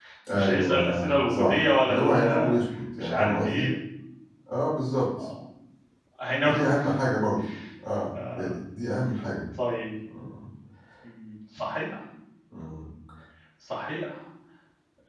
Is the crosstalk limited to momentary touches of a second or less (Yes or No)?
No